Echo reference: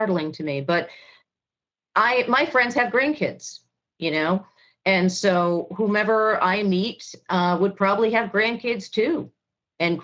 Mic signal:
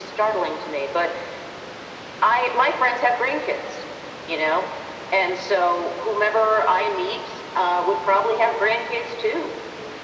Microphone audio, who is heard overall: echo only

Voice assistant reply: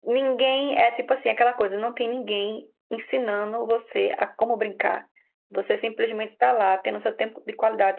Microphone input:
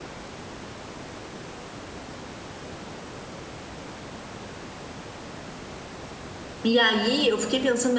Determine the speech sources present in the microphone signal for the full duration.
user only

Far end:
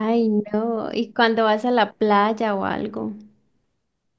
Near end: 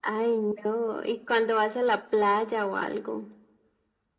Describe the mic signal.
echo only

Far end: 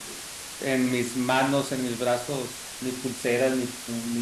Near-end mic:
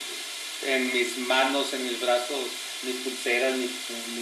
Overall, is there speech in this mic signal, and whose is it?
echo only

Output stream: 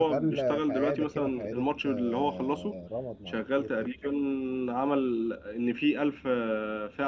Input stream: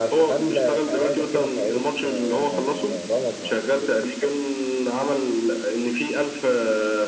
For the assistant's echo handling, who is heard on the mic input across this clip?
echo only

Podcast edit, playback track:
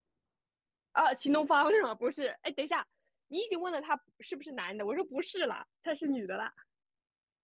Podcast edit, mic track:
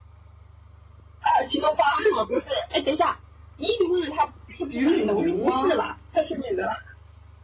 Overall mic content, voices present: both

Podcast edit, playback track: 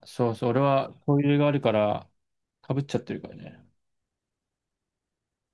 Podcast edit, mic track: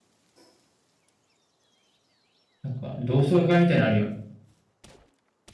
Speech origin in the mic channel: user only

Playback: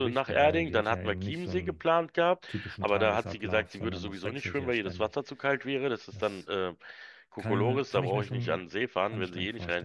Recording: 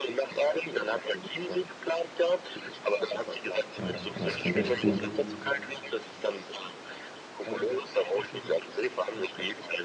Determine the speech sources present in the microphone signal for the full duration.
both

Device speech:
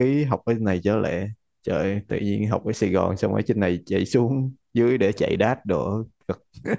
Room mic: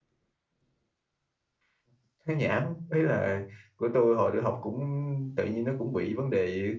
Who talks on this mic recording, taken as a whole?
user only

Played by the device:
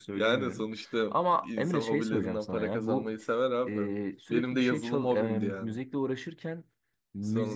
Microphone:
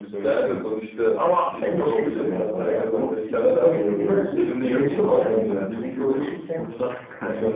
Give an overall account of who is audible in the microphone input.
both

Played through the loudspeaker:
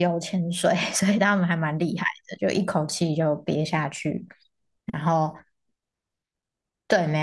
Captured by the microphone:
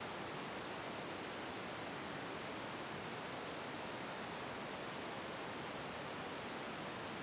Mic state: neither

